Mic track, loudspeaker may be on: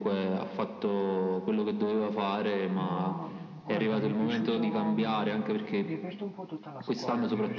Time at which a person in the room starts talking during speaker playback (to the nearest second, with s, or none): 3 s